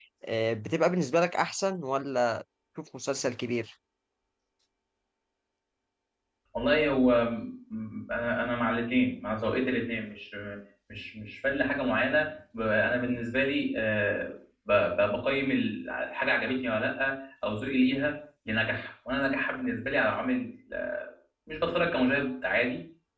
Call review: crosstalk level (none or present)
none